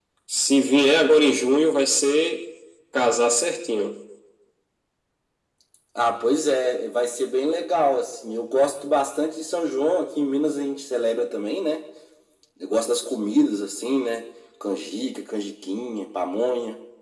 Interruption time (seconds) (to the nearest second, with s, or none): none